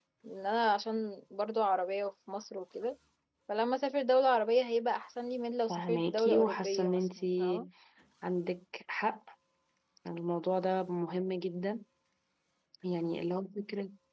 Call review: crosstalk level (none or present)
present